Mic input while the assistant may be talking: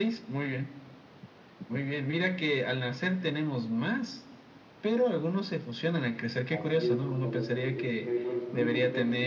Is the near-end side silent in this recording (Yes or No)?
No